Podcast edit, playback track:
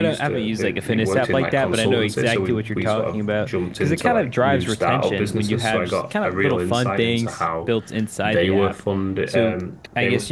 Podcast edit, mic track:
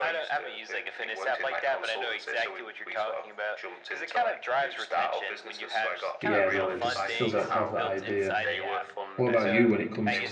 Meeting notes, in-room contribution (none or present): present